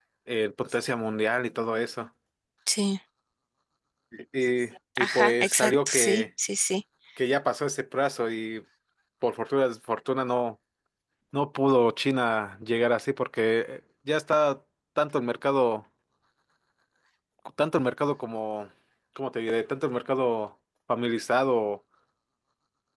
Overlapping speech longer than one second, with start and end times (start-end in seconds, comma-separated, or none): 5.0-6.2